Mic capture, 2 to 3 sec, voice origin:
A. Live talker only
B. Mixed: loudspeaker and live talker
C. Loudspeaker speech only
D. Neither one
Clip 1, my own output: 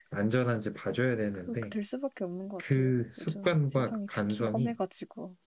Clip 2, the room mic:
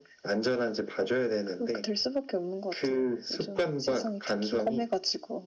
C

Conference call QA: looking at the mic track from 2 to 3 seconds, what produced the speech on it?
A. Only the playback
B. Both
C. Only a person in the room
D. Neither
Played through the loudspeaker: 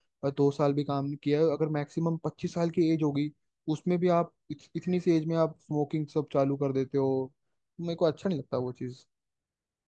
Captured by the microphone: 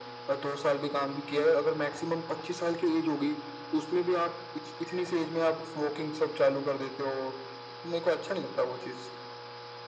A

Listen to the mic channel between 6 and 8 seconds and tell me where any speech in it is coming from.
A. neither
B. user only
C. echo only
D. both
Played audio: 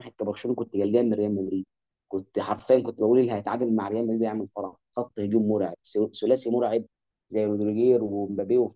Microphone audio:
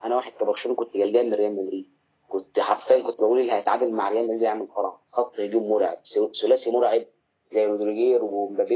C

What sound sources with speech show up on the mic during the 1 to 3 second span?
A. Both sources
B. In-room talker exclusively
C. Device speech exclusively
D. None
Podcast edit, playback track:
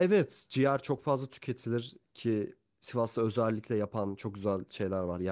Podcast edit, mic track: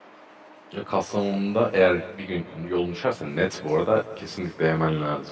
B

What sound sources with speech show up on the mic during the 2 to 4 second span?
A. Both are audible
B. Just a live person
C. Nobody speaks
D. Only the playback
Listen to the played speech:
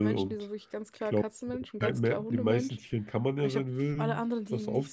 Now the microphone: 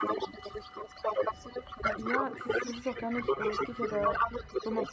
A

